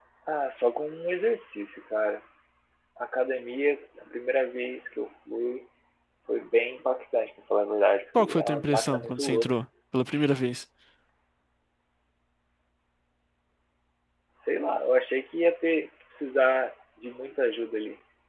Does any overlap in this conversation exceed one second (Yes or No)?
Yes